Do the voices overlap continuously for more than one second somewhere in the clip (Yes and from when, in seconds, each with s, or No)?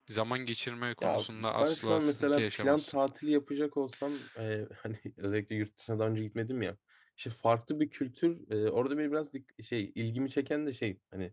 Yes, from 1.0 s